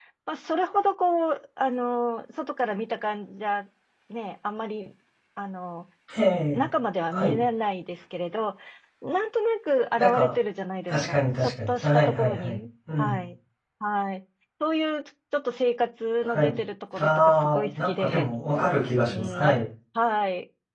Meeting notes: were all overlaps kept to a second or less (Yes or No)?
No